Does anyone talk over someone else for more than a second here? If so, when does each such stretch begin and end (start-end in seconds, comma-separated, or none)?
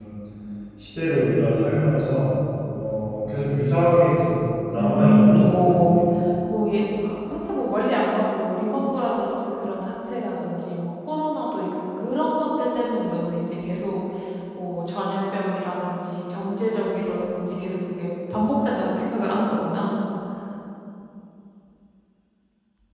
4.8-6.0